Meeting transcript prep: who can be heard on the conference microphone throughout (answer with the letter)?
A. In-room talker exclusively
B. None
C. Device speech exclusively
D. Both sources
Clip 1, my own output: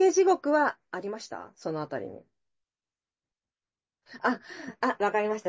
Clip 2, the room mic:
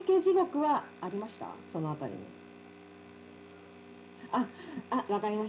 C